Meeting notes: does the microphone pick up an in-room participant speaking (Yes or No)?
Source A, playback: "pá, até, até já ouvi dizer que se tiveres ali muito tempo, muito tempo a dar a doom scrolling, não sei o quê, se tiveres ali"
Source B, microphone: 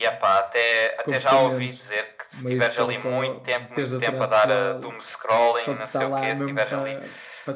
Yes